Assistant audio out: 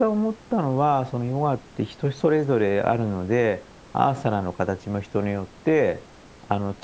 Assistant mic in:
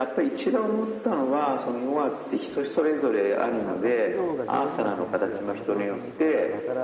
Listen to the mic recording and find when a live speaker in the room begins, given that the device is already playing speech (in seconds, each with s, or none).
3.6 s